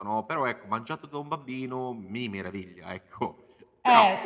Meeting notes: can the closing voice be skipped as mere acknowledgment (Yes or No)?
No